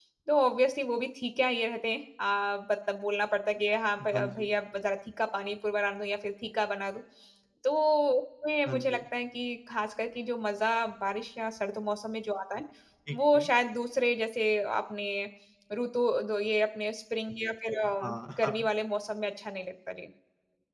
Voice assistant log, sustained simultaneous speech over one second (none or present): none